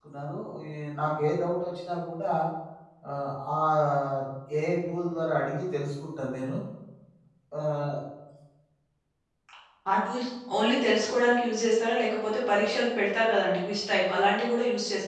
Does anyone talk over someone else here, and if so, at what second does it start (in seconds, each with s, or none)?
none